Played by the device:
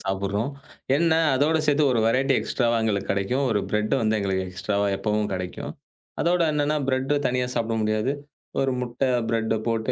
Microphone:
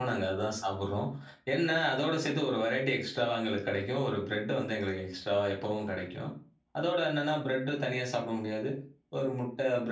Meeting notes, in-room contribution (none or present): none